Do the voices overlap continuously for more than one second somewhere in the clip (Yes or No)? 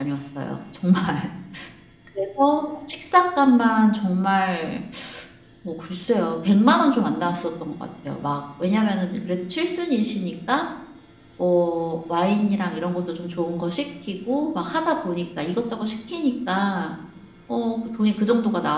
No